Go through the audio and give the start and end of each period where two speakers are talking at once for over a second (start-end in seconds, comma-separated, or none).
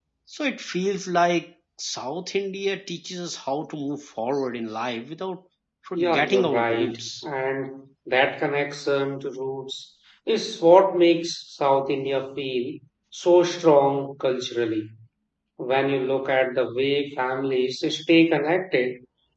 6.0-7.2